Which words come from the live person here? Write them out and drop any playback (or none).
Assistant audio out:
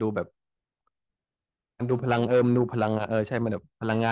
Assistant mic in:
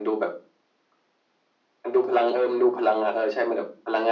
none